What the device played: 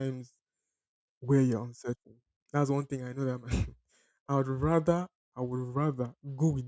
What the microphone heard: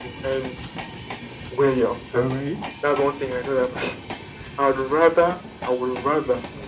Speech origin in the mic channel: both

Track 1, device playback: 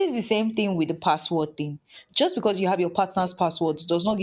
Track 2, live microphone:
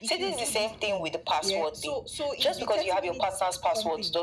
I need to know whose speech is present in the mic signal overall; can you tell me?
both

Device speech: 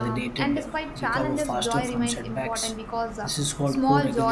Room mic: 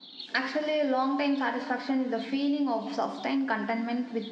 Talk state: user only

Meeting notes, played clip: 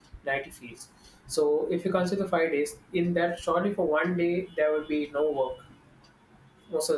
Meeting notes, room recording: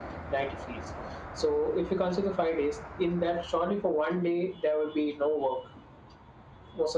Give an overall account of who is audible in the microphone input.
echo only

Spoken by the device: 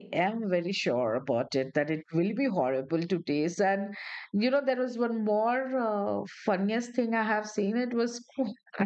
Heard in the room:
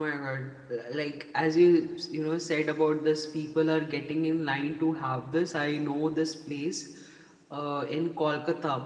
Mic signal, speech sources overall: user only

